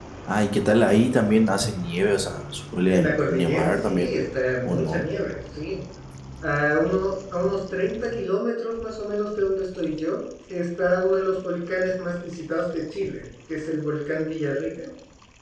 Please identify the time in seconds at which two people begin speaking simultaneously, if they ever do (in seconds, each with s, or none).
2.9 s